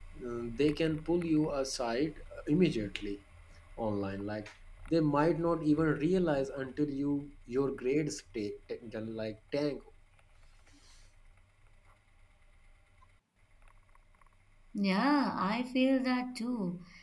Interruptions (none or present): none